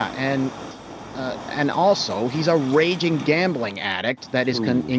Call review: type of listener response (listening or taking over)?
listening